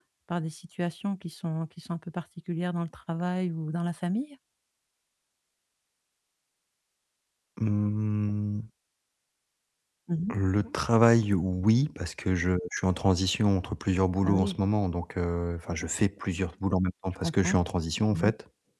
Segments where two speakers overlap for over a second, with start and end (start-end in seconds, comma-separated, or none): none